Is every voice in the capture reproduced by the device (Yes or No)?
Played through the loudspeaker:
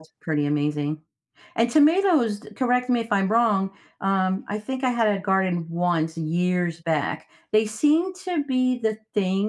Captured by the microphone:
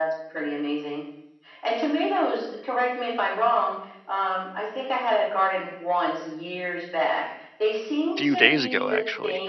No